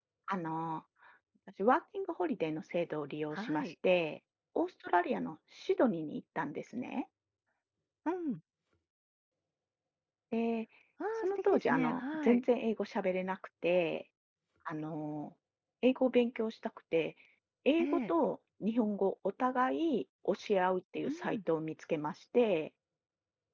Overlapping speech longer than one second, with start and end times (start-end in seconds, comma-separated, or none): 11.2-12.4